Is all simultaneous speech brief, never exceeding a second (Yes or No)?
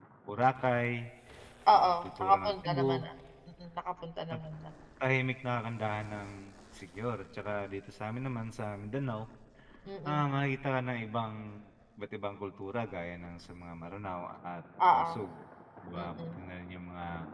No